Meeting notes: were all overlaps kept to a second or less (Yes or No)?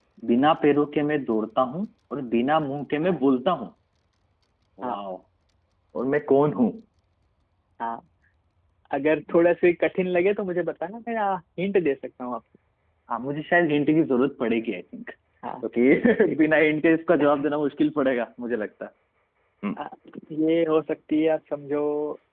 Yes